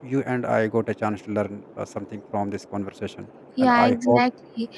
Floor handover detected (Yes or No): Yes